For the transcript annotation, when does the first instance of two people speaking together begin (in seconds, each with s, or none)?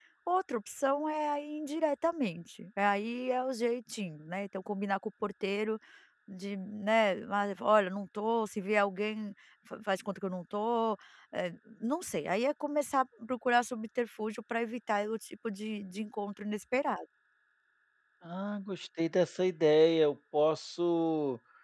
none